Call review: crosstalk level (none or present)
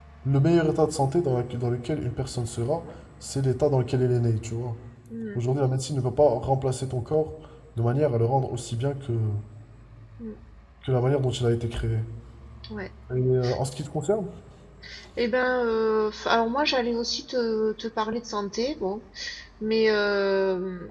none